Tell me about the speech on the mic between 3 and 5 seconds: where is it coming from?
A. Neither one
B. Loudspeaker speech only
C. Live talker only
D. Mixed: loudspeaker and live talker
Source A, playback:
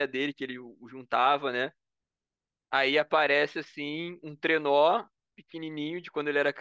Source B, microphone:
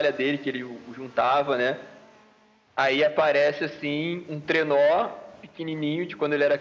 B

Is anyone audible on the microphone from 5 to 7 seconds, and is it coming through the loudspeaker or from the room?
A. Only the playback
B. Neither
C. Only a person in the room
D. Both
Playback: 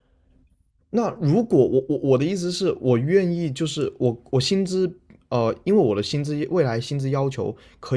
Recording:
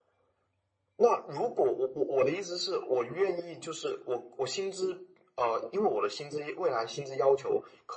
A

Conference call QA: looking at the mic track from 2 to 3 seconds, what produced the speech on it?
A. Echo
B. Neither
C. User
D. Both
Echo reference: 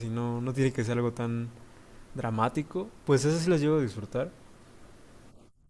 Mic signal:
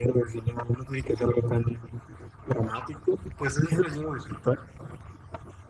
A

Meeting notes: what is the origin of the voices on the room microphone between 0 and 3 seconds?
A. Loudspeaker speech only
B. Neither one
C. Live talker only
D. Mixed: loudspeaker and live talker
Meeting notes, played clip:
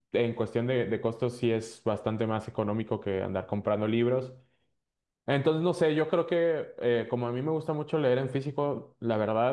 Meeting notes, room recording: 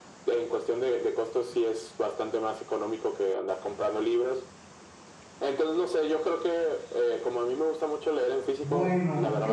A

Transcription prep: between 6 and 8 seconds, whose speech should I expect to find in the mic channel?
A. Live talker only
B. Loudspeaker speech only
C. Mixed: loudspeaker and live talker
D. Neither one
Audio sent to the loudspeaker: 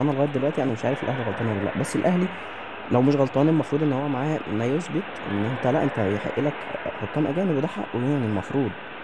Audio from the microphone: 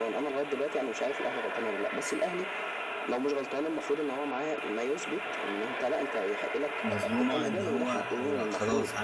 C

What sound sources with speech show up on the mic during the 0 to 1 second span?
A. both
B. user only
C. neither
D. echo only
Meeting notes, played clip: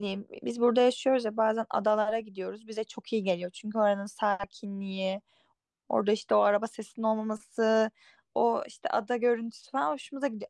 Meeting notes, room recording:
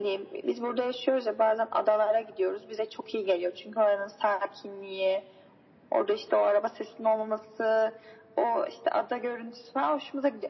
D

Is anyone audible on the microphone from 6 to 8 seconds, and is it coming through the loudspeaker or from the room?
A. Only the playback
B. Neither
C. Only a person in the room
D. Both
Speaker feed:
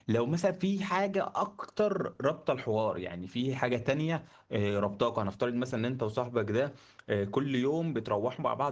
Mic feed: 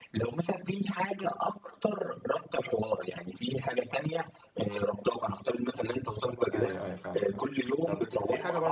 D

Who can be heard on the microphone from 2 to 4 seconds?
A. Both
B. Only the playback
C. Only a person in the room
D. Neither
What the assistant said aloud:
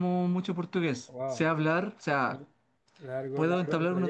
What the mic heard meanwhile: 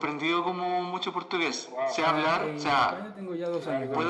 A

